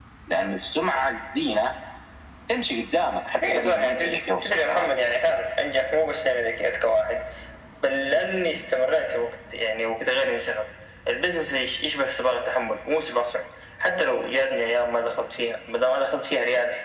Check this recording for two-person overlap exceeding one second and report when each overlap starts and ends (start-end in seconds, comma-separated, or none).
3.4-4.9